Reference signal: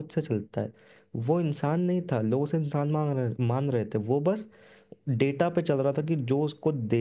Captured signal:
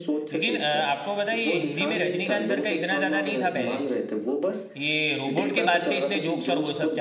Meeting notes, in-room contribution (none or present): present